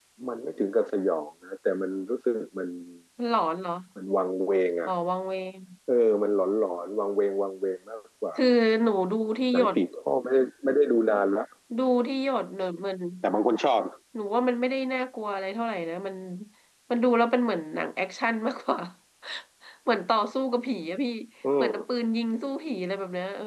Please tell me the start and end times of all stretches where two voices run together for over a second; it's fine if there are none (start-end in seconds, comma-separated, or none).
none